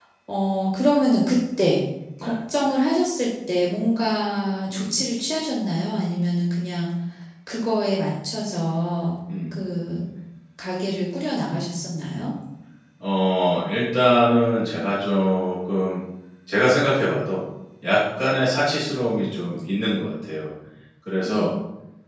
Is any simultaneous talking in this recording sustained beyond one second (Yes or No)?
No